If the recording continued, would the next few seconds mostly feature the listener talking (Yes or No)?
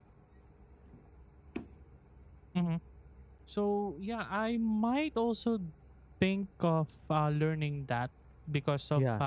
No